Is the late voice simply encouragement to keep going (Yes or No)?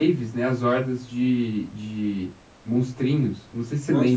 No